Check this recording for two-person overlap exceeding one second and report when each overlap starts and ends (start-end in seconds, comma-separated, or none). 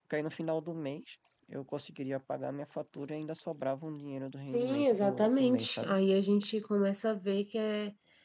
4.5-5.9